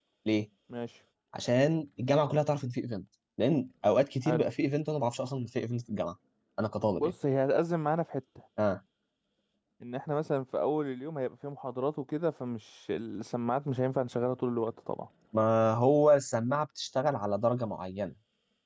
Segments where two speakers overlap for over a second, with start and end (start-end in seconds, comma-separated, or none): none